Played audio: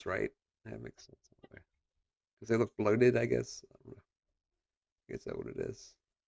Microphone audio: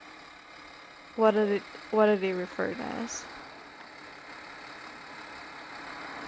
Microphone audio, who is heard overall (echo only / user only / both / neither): user only